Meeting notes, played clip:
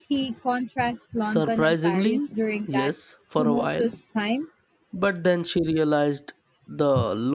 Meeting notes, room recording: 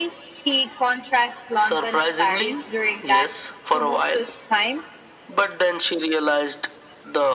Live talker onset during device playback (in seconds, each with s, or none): none